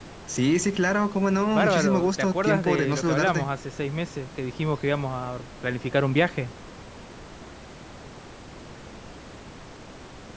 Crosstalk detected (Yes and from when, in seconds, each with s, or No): Yes, from 1.5 s